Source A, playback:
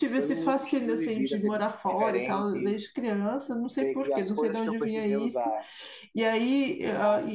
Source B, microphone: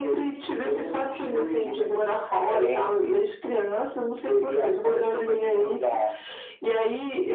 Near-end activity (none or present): none